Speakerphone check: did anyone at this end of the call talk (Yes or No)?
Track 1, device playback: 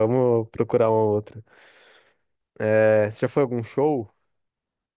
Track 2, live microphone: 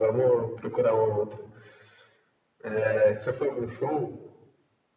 No